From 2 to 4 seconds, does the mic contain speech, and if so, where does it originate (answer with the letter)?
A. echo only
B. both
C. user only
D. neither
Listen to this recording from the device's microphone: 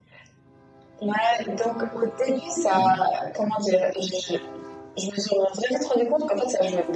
B